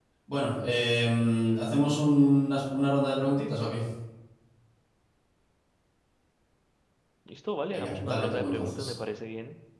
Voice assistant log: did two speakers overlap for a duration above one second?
Yes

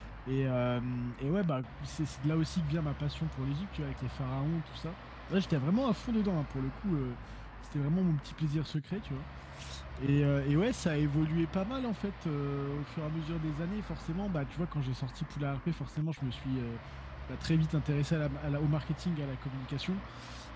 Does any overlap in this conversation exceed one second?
No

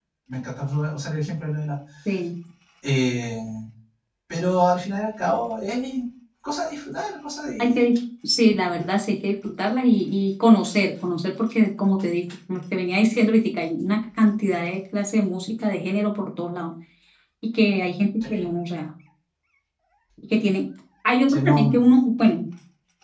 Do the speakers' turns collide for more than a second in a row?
No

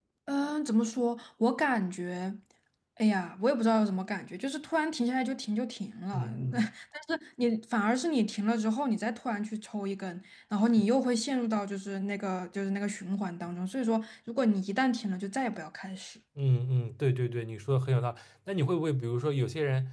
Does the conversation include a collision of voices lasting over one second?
No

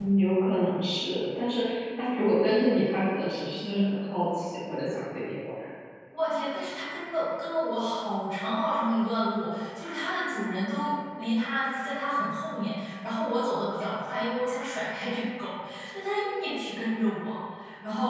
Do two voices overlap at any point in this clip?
No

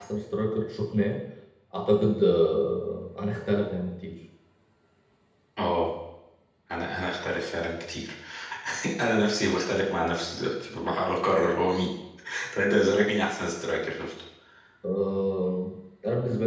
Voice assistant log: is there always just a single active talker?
Yes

